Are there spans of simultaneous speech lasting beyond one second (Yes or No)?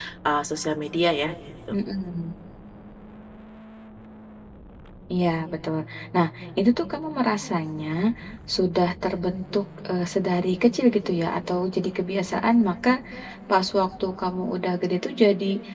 No